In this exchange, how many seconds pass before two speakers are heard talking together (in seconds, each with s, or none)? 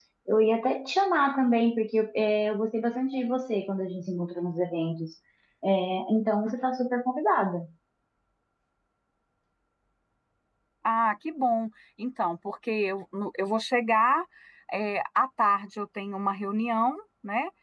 none